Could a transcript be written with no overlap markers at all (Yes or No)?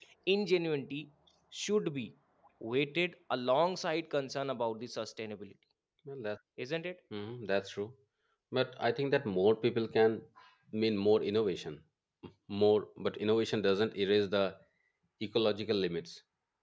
Yes